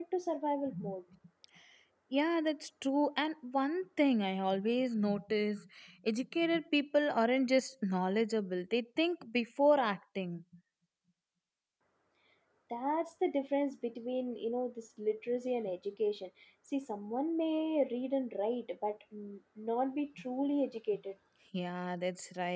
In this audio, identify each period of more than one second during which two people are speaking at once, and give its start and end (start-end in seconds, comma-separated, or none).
none